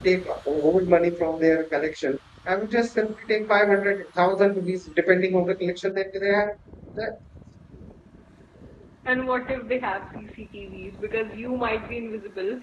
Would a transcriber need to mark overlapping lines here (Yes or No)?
No